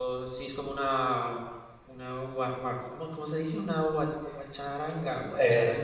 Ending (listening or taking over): taking over